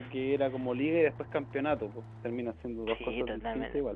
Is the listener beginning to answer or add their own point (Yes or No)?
Yes